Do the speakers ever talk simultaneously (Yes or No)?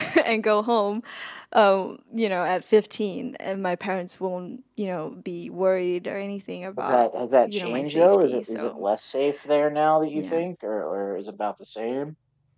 Yes